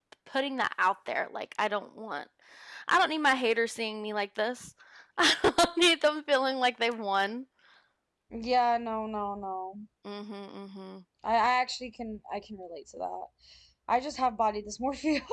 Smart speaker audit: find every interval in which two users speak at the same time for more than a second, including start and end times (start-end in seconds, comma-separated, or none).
none